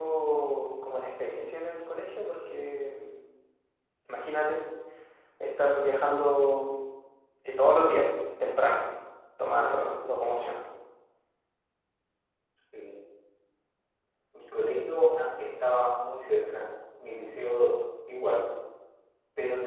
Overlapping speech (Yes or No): No